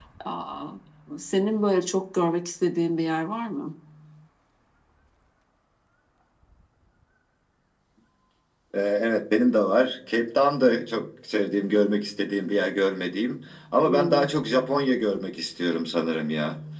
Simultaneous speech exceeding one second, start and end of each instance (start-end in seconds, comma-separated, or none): none